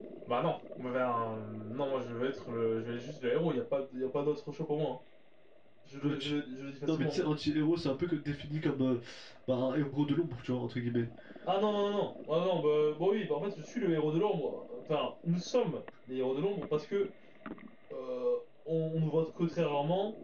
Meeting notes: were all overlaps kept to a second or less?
Yes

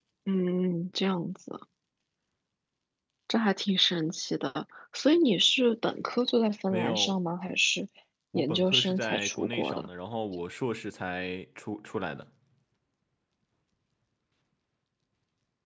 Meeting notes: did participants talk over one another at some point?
Yes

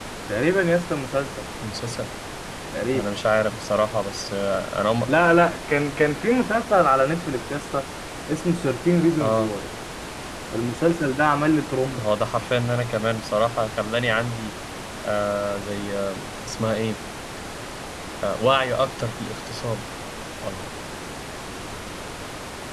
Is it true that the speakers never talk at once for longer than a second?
Yes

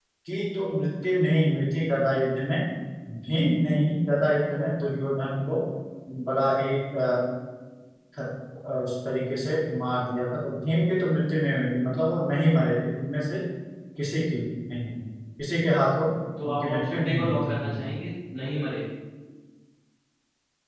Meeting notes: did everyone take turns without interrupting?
No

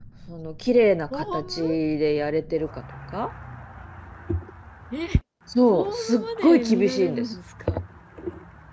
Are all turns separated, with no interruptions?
No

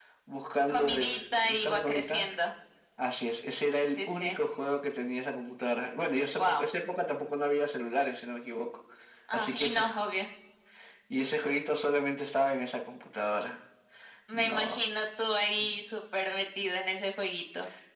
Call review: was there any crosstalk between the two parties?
Yes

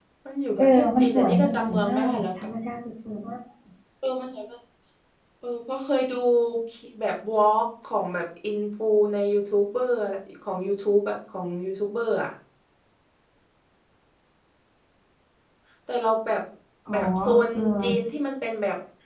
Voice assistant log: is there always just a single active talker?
No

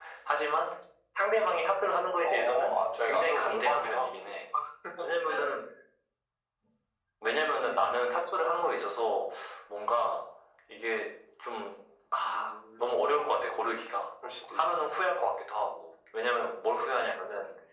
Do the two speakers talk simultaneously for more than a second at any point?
Yes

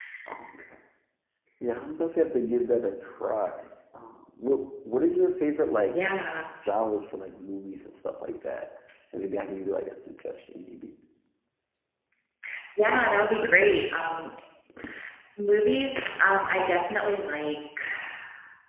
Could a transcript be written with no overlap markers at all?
Yes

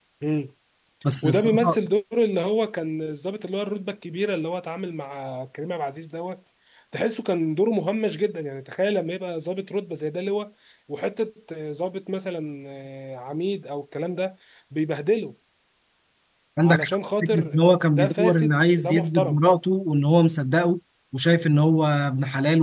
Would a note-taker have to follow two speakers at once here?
Yes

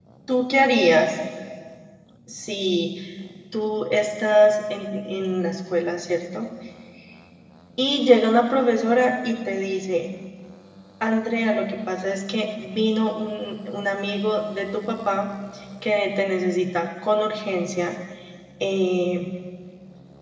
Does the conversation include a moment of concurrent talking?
No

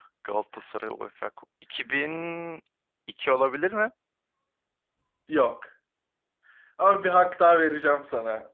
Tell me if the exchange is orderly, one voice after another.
Yes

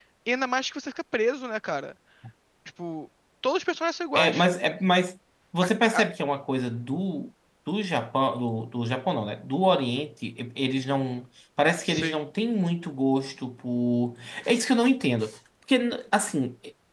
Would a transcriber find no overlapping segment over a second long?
Yes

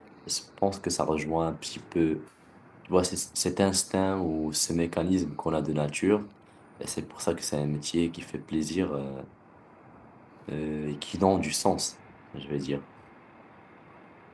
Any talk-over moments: No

